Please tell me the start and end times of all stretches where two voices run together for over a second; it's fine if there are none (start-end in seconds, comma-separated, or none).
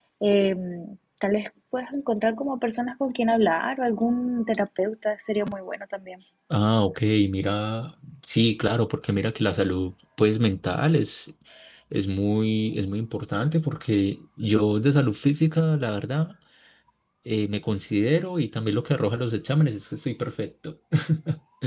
none